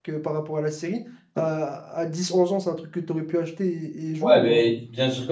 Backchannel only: No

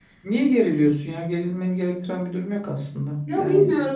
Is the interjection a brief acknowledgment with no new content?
No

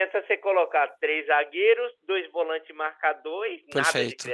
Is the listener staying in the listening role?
No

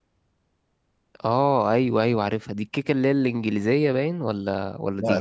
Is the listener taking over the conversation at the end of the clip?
Yes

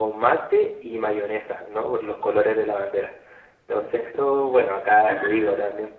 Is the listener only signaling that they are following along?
Yes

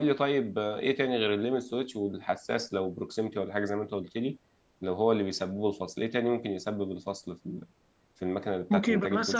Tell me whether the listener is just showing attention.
No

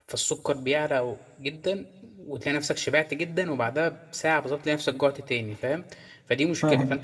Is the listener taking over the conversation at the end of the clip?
No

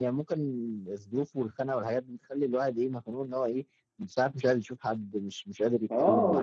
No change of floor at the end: No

